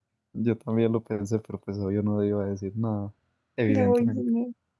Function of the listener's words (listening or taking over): taking over